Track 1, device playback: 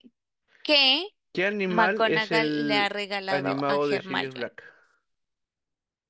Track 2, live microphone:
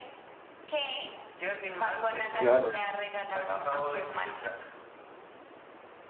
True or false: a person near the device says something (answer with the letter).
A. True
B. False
A